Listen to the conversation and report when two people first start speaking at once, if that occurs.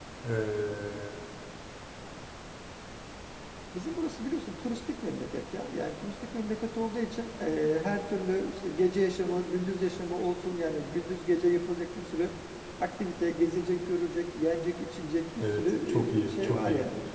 15.4 s

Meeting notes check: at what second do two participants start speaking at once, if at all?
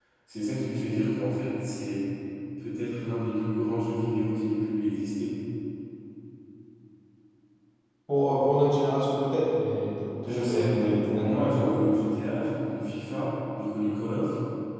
10.2 s

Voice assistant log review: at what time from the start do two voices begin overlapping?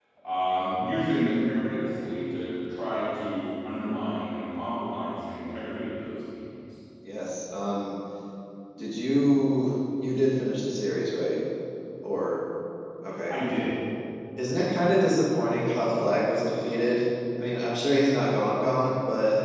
none

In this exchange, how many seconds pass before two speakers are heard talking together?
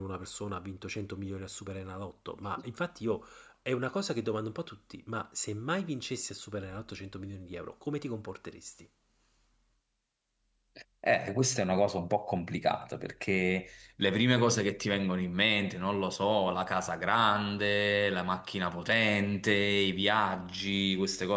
none

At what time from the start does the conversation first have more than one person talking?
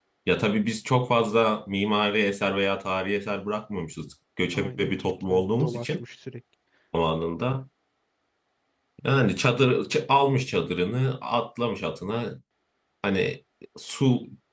4.5 s

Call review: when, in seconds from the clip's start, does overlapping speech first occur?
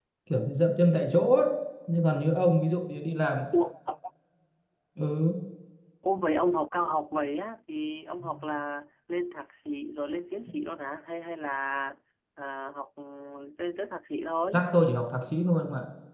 none

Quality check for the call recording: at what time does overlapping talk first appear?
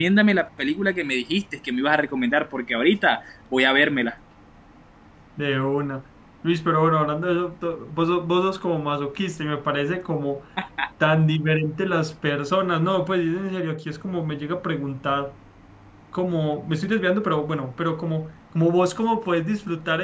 none

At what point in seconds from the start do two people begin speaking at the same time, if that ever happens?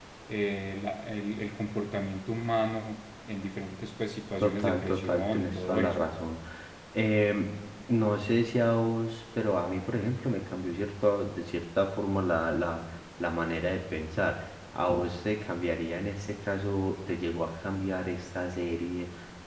4.4 s

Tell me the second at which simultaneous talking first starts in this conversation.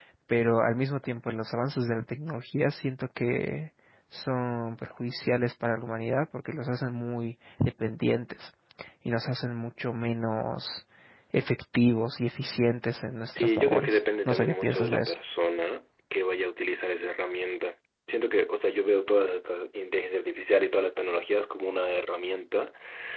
13.2 s

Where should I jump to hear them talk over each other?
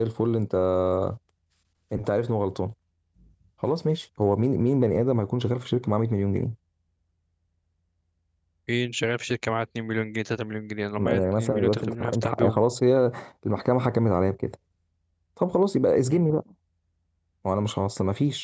11.0 s

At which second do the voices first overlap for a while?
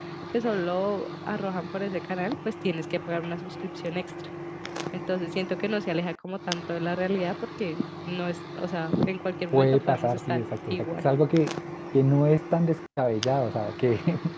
9.5 s

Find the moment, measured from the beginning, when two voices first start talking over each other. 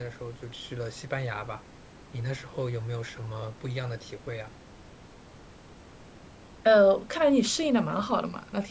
none

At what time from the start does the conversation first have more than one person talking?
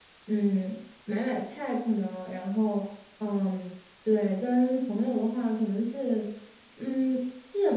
none

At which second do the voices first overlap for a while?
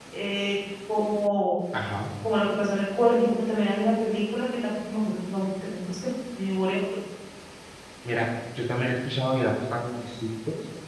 none

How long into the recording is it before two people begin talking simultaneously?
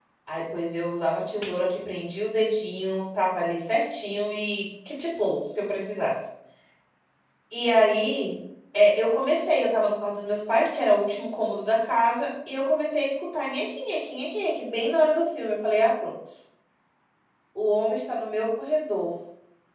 none

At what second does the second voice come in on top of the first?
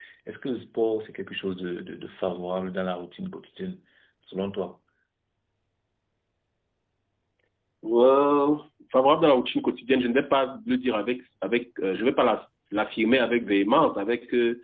none

